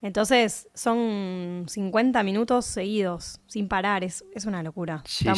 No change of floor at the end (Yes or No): No